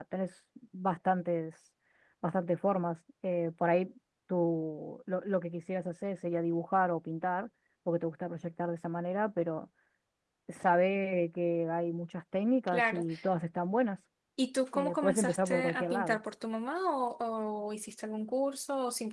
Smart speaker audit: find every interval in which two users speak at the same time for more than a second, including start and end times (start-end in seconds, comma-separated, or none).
14.7-16.2